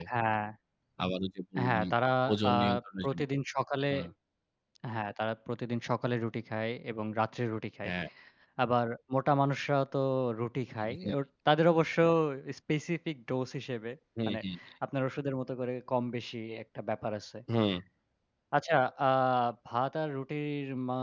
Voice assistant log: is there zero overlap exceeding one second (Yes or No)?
Yes